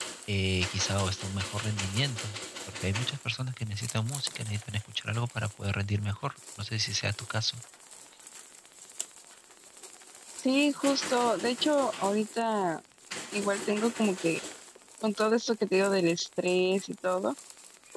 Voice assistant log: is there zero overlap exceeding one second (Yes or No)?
Yes